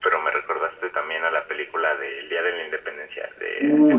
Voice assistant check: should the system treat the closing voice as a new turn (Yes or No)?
Yes